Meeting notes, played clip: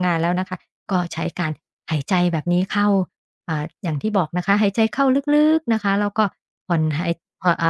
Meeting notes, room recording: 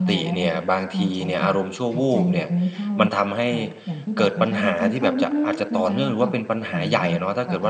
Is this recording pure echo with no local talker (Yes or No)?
No